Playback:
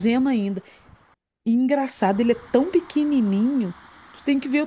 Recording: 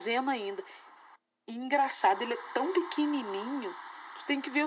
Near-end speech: none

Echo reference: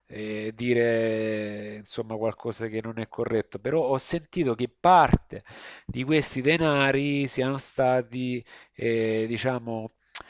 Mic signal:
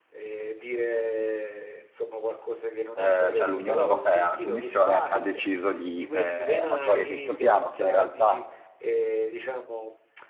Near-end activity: present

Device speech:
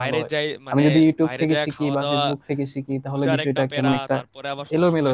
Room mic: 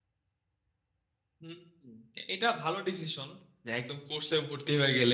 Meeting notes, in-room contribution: present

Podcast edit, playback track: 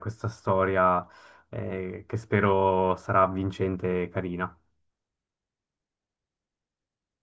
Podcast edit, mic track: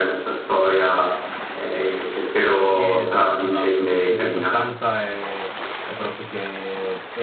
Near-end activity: present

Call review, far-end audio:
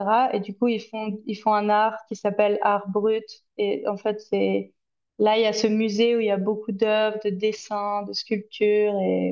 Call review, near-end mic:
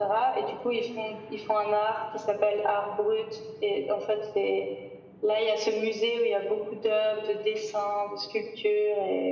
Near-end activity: none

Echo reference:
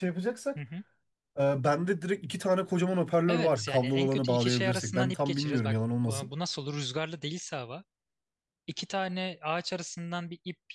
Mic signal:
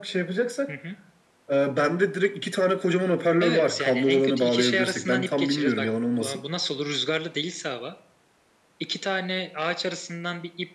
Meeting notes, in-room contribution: none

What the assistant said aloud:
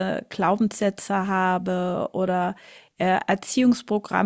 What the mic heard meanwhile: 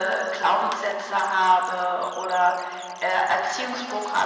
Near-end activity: none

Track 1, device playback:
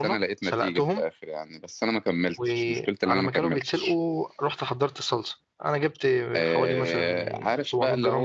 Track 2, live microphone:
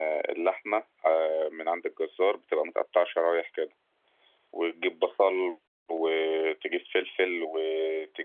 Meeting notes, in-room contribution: present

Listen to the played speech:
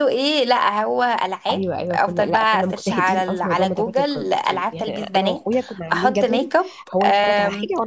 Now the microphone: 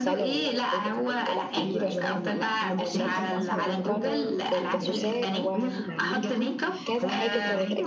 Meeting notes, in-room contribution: present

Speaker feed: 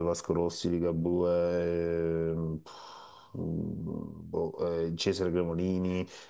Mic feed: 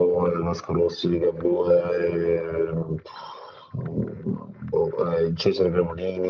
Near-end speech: none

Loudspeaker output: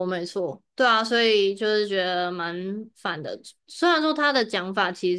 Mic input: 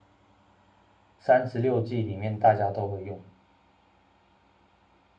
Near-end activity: present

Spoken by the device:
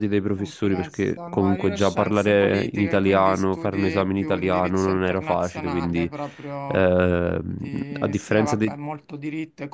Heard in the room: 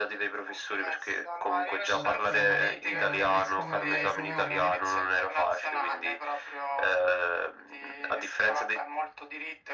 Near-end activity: present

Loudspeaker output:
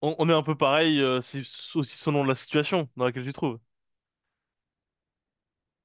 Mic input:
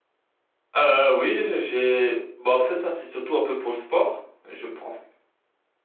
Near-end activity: present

